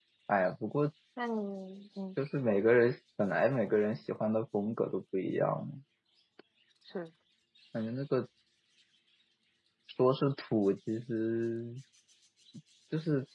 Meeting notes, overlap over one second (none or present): none